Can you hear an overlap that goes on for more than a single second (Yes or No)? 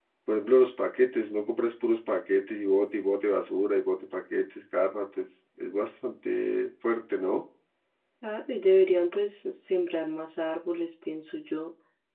No